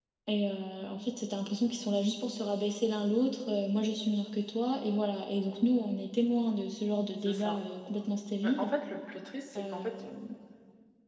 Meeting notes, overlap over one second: none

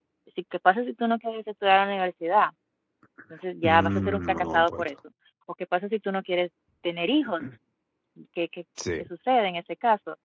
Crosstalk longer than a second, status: present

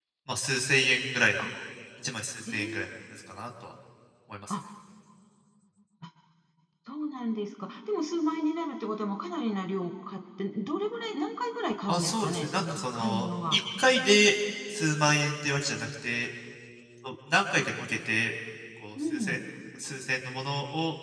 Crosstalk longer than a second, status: present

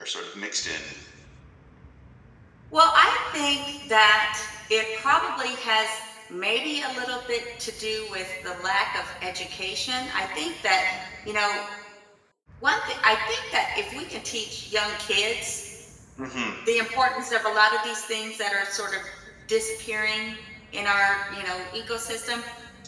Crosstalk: none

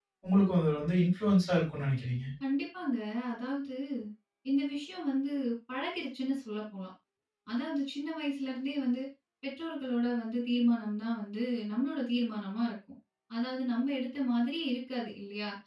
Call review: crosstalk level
none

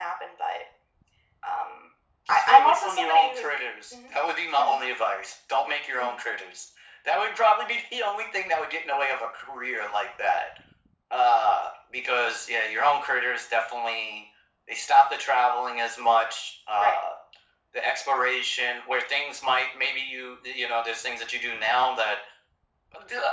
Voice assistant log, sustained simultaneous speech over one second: present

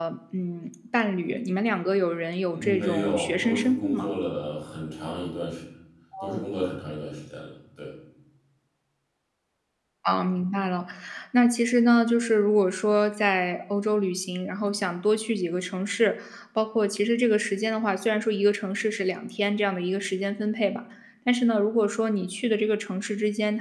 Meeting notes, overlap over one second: present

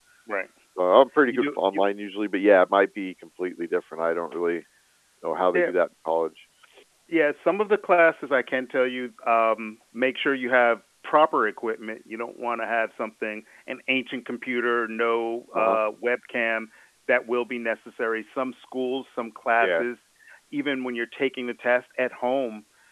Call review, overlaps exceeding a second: none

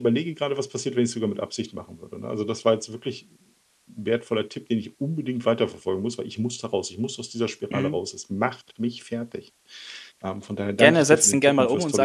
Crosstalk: present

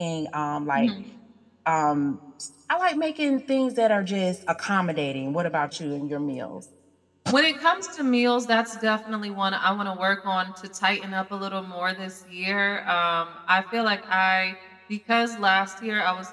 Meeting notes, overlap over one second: none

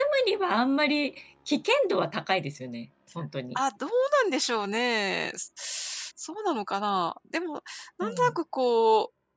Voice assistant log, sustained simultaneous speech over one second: none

